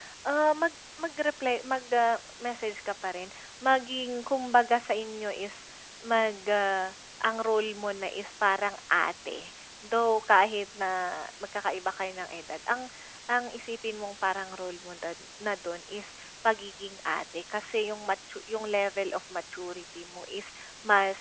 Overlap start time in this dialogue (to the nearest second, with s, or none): none